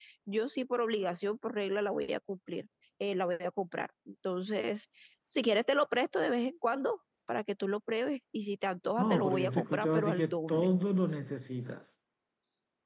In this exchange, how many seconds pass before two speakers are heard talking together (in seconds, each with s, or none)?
9.0 s